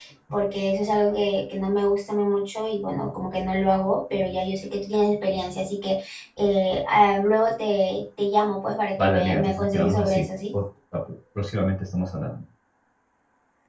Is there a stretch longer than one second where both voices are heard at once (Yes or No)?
Yes